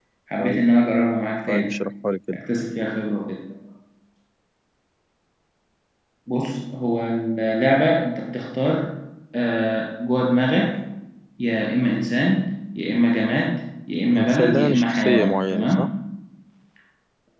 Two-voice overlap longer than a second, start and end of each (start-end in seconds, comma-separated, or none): 14.2-15.9